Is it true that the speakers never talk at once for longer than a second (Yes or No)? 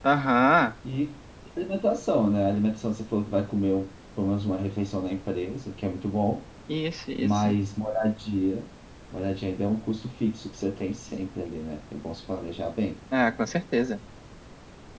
Yes